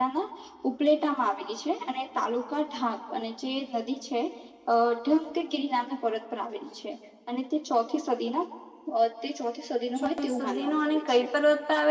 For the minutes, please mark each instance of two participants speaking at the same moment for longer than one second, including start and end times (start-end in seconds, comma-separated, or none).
10.0-11.2